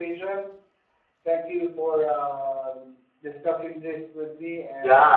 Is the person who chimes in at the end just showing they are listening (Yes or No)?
No